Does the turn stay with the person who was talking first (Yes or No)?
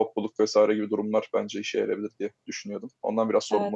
No